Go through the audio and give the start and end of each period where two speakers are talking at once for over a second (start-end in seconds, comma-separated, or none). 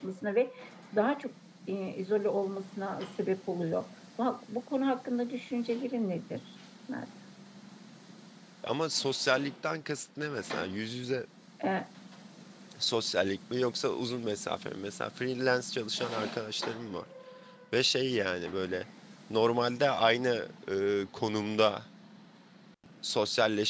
none